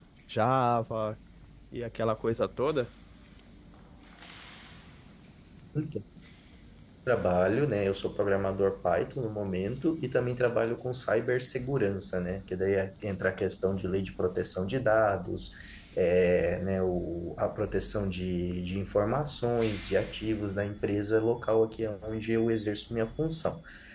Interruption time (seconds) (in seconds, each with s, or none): none